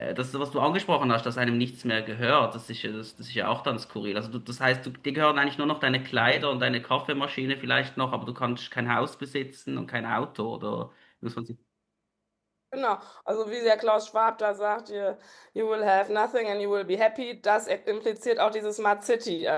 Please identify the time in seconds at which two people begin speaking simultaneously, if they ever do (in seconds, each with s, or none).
none